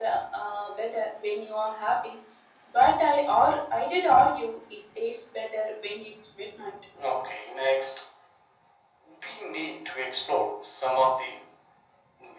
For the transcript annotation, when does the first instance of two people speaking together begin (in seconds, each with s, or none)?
none